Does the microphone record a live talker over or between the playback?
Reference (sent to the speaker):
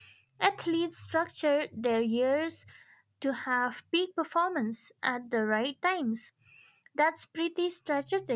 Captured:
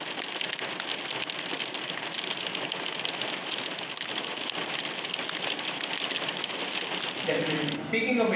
Yes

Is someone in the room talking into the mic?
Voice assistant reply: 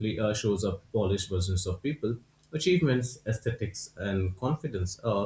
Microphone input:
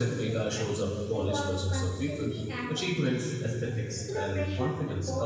Yes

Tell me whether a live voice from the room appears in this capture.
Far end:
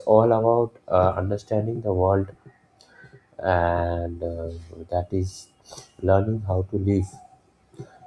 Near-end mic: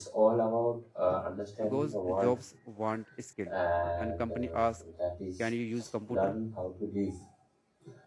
Yes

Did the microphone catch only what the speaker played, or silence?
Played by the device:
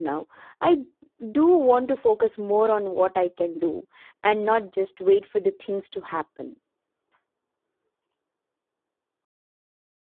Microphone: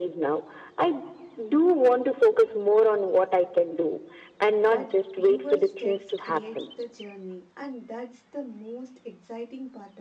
No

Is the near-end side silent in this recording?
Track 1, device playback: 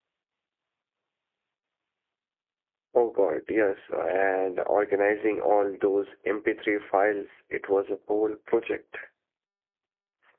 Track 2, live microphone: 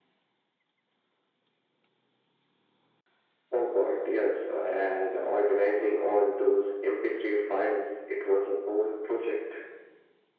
Yes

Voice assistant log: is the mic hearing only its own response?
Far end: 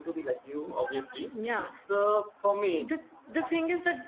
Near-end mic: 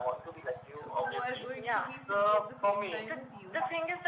No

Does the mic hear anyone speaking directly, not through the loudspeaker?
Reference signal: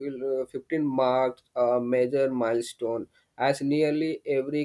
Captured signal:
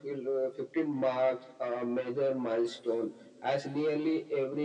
No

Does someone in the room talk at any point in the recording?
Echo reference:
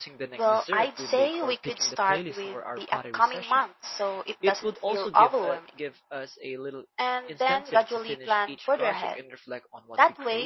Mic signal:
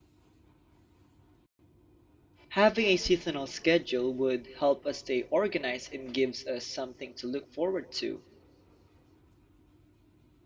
Yes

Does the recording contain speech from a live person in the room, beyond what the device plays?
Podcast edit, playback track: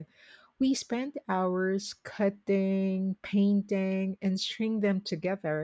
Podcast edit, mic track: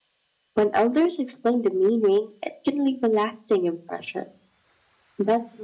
Yes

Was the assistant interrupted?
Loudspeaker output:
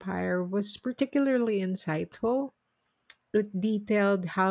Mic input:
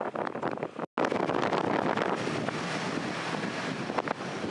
No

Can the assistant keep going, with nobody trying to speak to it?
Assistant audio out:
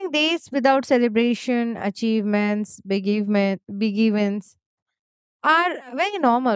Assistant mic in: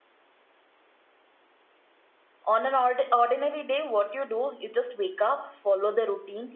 No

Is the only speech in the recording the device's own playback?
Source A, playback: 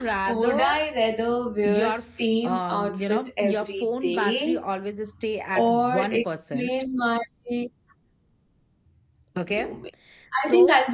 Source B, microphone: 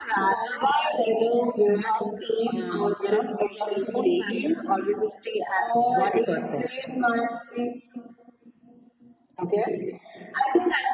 Yes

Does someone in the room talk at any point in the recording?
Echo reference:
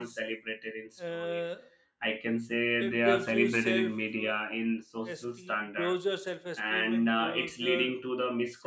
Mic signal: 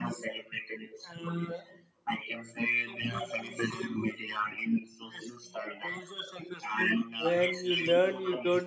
Yes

